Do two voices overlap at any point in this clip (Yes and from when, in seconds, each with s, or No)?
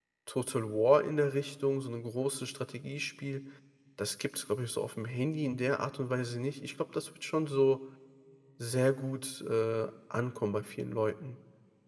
No